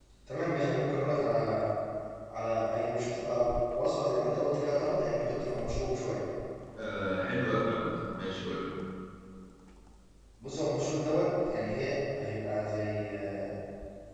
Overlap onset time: none

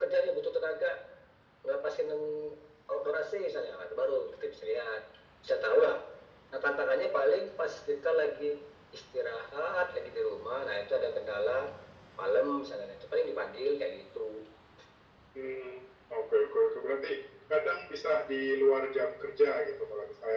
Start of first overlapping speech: none

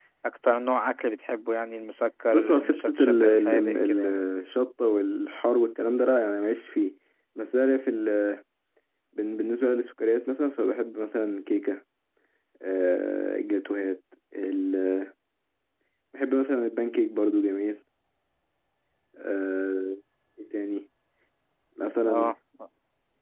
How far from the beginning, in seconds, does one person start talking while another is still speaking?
2.3 s

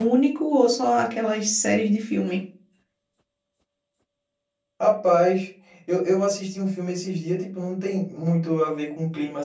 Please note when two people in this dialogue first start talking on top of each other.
none

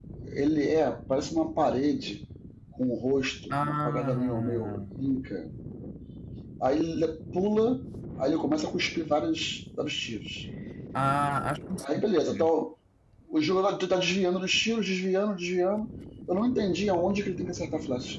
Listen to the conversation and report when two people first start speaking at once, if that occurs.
3.5 s

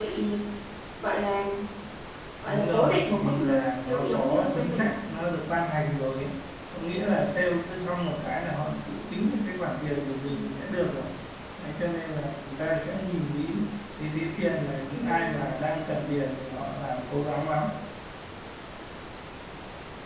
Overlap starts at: 2.5 s

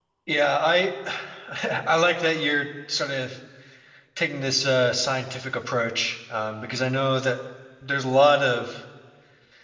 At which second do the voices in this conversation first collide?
none

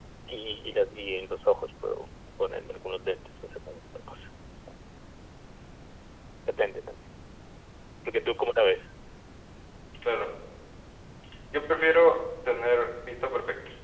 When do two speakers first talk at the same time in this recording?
none

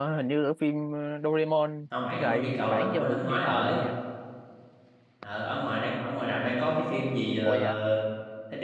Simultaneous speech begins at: 2.1 s

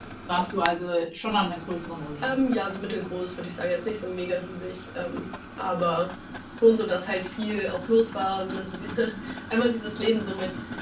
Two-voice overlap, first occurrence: none

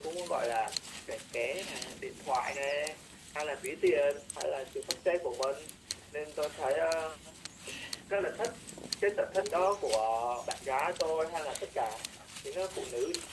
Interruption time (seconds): none

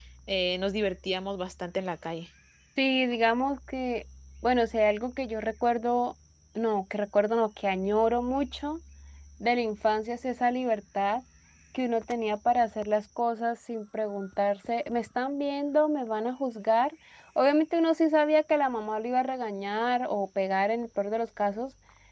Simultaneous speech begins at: none

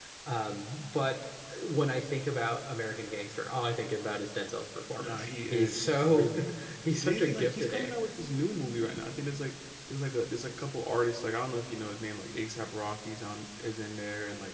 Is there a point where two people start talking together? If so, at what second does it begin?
5.0 s

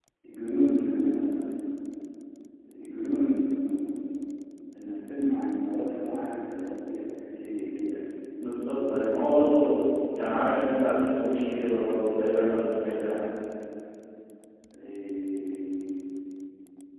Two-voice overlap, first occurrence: none

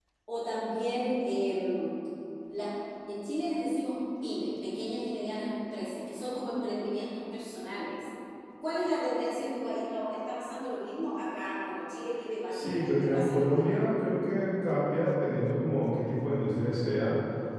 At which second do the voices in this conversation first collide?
12.5 s

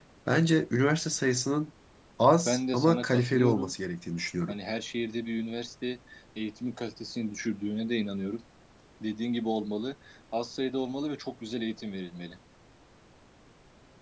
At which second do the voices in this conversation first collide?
2.5 s

